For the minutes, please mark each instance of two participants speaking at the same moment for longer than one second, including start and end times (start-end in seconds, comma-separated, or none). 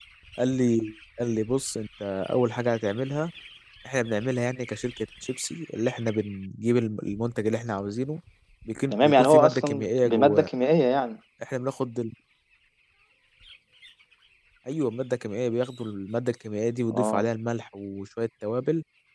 8.9-10.5